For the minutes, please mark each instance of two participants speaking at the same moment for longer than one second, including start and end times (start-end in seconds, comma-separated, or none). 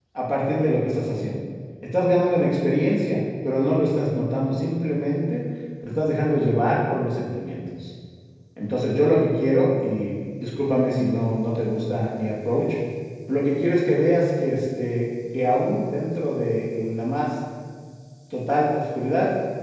none